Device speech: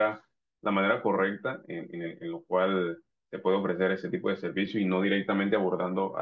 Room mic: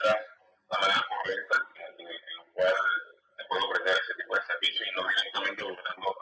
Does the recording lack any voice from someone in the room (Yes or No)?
Yes